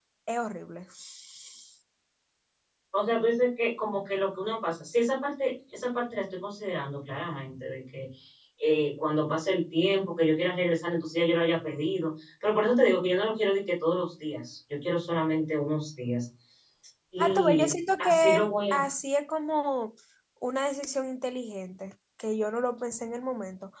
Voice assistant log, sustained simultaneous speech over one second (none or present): present